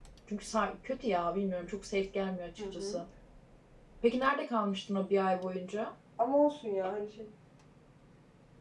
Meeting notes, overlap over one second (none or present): none